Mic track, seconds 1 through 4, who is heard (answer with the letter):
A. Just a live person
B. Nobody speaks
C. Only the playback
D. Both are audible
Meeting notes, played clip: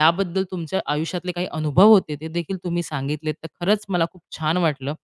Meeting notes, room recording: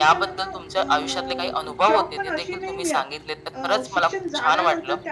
D